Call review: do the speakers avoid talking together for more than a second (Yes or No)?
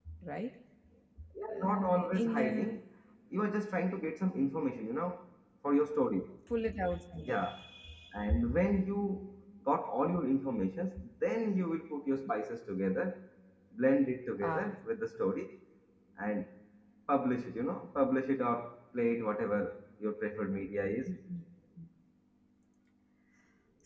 No